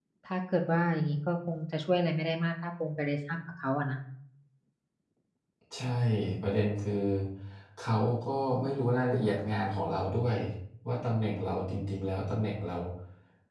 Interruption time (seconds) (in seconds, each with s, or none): none